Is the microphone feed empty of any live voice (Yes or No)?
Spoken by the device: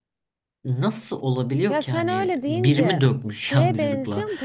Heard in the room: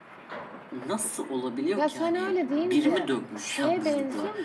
Yes